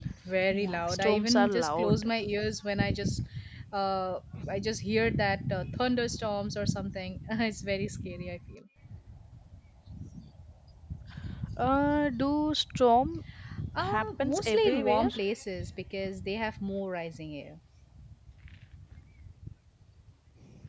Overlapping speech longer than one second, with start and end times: 0.5-2.0, 13.8-15.1

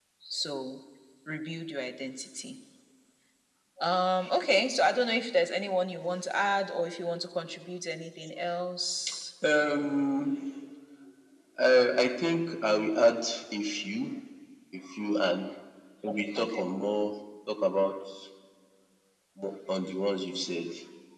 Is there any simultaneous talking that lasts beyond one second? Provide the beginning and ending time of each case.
none

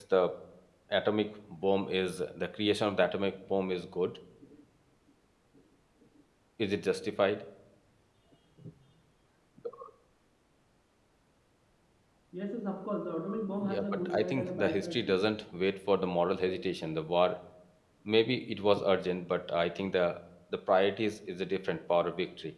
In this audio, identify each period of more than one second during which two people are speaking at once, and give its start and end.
13.6-15.2

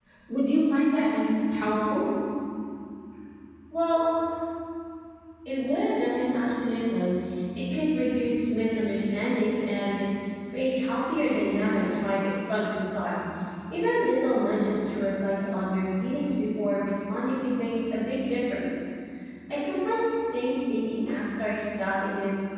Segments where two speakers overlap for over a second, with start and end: none

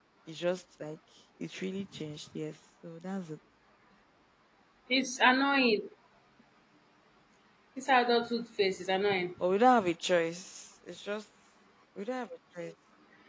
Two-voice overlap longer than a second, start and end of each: none

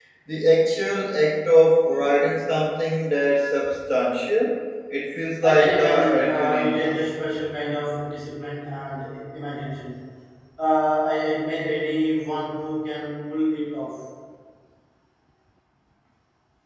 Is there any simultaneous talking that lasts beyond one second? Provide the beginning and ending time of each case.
5.4-7.0

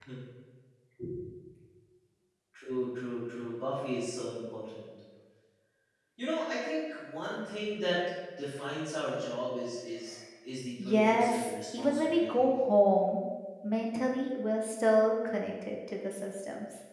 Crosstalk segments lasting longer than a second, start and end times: 10.8-12.5

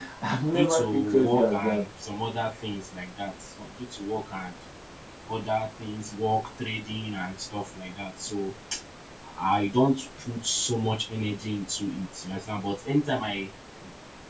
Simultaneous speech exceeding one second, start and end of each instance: 0.5-1.8

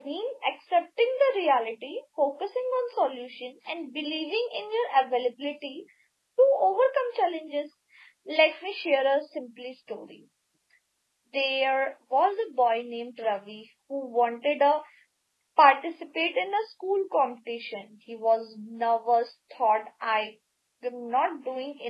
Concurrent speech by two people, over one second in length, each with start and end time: none

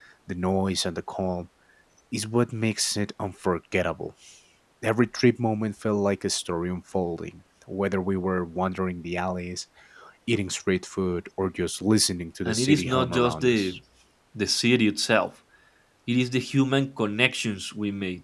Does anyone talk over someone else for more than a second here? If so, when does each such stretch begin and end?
12.4-13.7

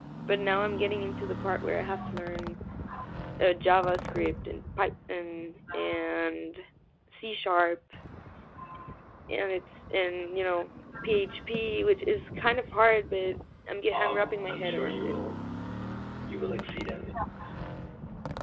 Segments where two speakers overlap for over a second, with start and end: 13.9-15.2

